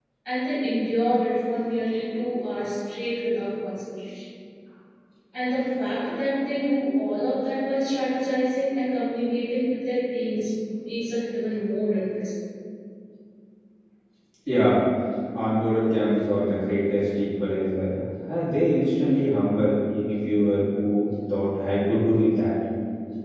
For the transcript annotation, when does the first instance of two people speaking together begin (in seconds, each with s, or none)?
none